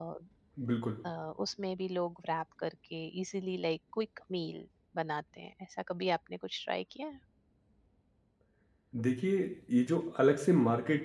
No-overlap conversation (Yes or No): Yes